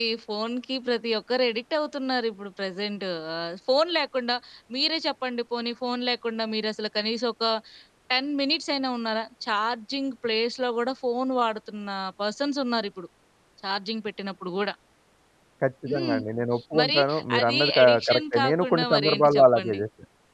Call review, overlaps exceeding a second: present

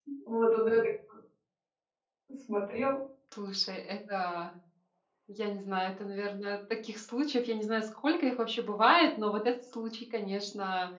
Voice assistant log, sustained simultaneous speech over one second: none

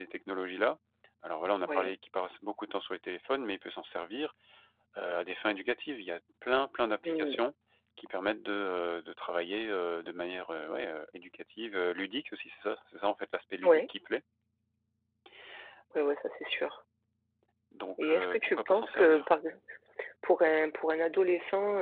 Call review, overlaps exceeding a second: present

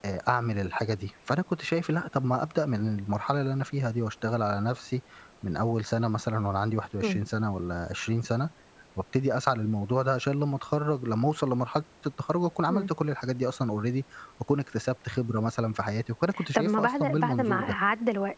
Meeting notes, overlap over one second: present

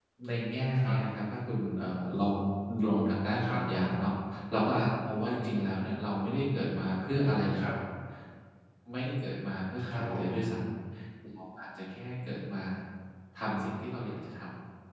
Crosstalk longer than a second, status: none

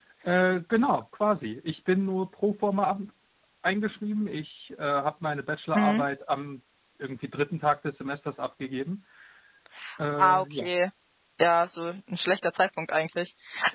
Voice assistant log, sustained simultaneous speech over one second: none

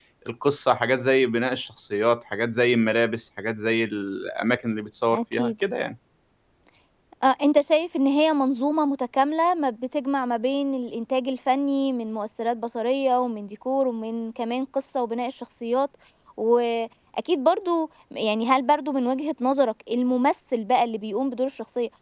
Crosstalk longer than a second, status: none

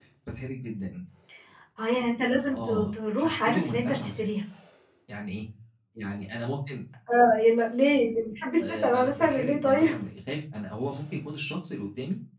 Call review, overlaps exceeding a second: present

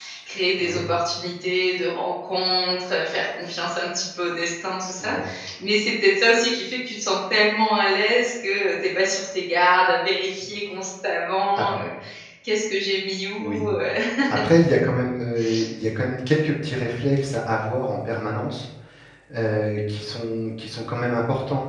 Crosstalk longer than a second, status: none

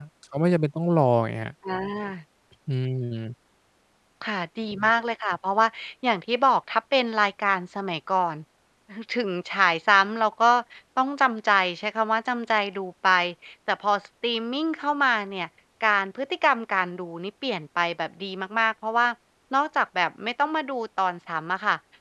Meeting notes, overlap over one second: none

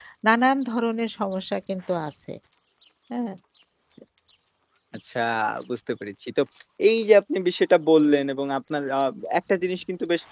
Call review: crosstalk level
none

